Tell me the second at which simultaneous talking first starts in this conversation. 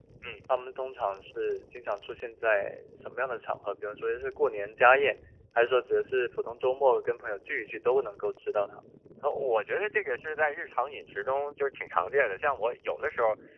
none

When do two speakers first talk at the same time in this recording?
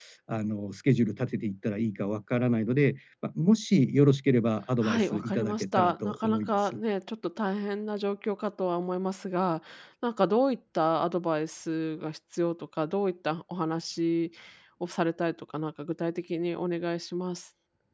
4.8 s

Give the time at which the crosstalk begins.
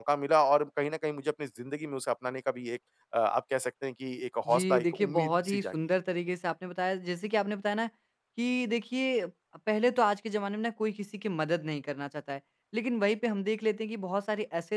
4.5 s

